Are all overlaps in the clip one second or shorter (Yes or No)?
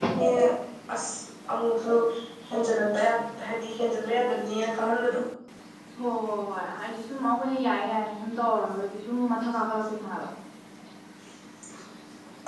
Yes